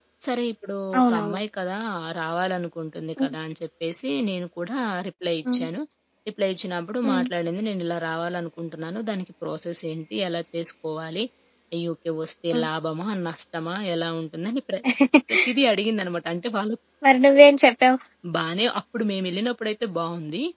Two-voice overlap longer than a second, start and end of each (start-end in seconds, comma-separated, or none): none